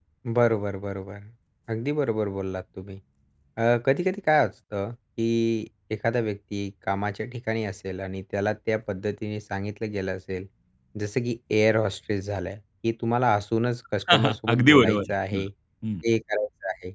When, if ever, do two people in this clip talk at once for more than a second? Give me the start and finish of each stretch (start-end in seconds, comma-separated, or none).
14.1-15.4